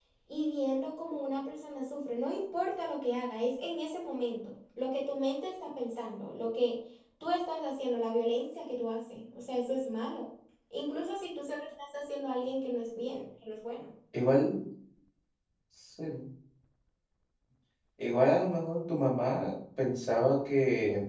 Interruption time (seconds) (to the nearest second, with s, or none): none